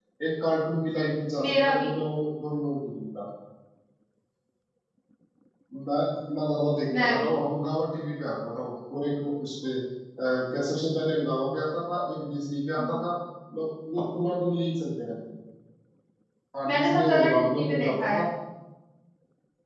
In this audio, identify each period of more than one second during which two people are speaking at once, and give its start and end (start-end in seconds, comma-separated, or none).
16.7-18.2